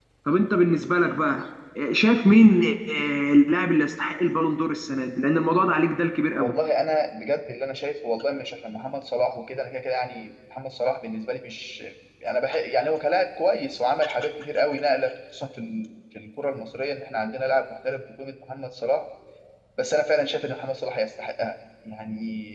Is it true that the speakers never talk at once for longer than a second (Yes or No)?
Yes